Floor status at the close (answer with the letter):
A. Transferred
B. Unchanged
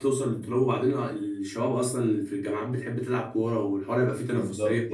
A